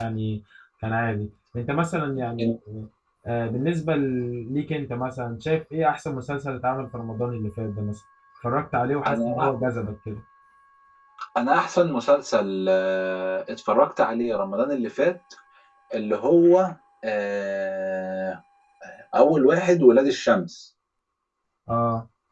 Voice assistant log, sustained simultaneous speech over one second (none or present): none